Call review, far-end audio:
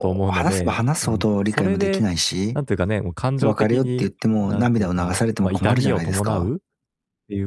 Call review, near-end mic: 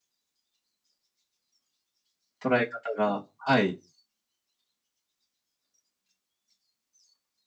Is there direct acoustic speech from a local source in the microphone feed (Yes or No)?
Yes